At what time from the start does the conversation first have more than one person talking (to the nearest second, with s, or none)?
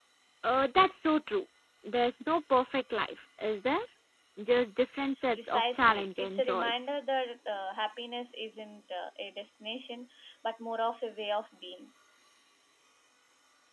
5 s